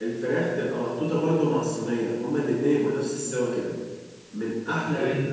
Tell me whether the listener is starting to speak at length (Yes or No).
No